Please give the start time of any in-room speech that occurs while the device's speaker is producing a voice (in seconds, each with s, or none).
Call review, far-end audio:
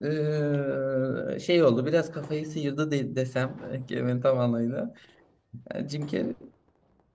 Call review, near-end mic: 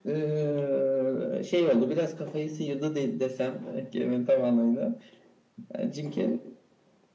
none